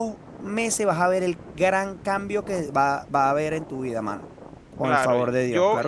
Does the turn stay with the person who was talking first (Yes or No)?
No